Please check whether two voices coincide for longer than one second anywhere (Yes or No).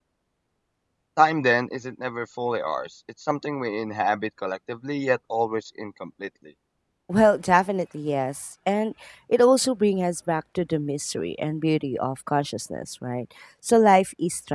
No